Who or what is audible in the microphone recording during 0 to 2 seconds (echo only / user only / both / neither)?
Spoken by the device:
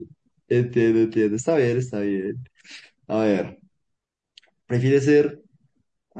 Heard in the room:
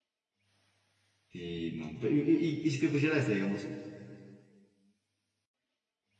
user only